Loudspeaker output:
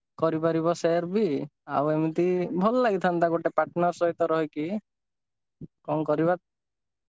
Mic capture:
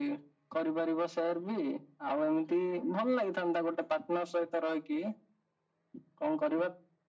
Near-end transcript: none

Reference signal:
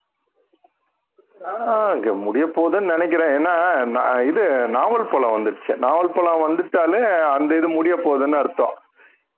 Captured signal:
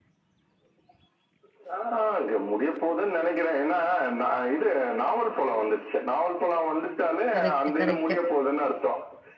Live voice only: கரெக்ட்டு கரெக்ட்டு

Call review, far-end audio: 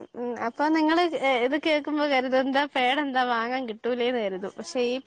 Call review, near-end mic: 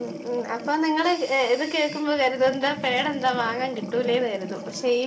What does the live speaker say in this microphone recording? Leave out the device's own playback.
none

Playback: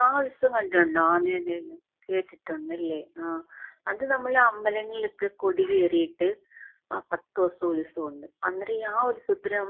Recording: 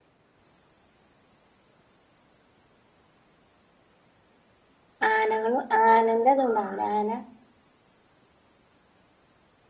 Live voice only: ആനകള് അനന്റതുണ്ട അവിടെ ആന

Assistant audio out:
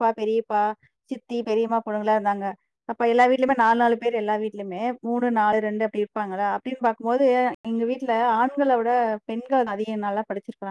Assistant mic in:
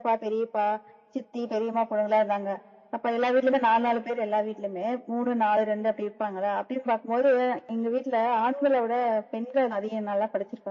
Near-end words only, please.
none

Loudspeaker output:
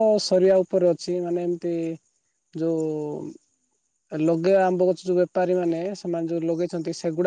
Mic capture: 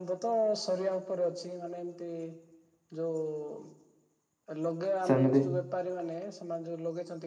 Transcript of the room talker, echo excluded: ସେମିିତି।

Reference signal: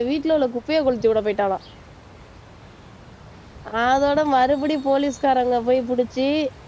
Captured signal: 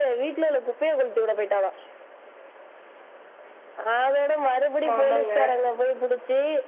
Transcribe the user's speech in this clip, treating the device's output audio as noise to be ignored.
ஆமா ஆமாங்க

